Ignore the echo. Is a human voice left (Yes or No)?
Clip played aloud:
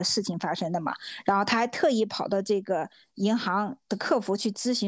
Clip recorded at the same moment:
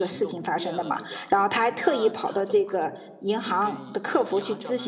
Yes